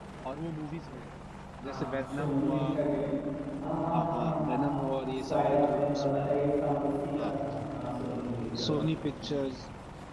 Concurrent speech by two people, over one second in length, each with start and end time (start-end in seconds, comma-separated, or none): 1.6-3.1, 3.9-6.2